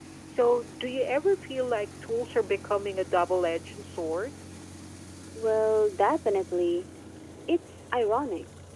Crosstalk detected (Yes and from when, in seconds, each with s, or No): No